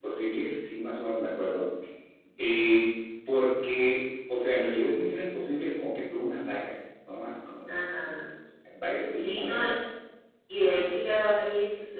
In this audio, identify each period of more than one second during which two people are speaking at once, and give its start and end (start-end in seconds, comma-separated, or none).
none